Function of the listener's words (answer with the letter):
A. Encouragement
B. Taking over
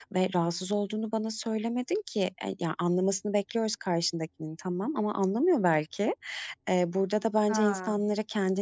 A